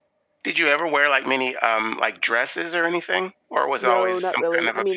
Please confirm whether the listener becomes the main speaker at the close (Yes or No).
Yes